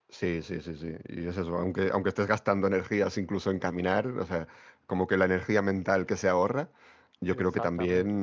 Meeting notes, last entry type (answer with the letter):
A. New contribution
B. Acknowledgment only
B